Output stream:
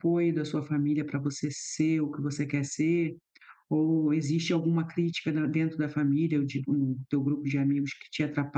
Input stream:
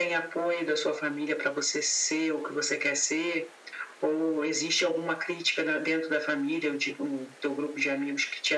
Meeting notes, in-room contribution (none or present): none